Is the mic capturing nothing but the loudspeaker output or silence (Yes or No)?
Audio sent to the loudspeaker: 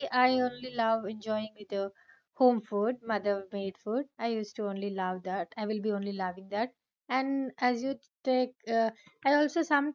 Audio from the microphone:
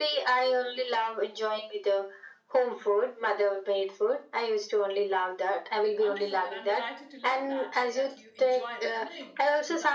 No